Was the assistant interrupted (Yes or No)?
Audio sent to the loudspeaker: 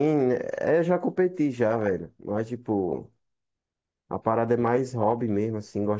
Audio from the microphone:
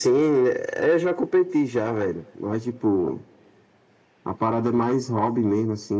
No